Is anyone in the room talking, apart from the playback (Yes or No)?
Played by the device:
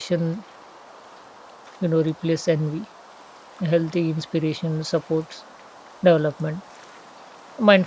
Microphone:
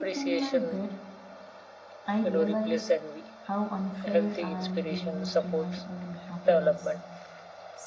Yes